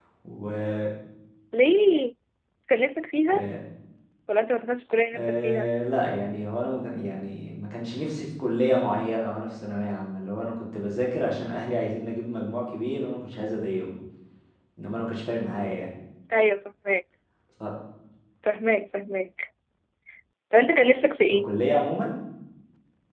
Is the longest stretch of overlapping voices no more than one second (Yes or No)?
Yes